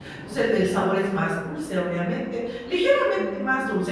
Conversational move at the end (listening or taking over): listening